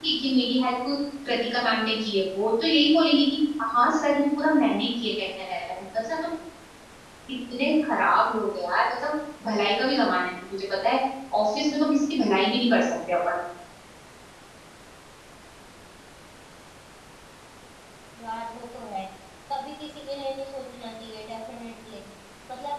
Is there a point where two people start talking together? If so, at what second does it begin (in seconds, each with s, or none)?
none